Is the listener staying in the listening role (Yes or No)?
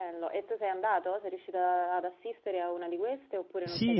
No